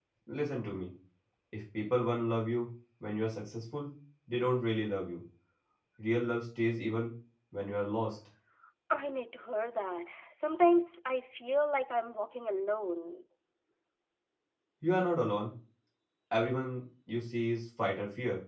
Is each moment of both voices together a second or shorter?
Yes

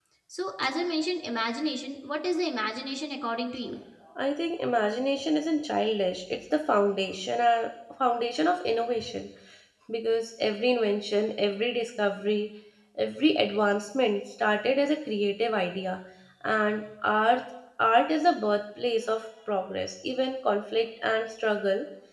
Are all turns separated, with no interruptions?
Yes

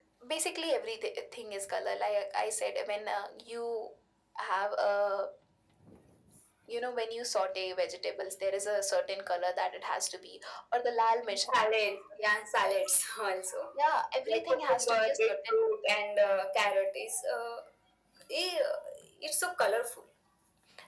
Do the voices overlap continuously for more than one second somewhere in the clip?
Yes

